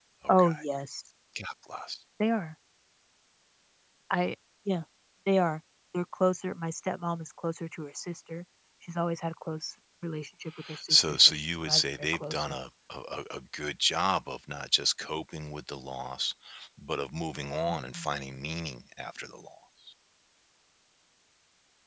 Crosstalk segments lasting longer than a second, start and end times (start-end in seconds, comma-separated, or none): 10.9-12.6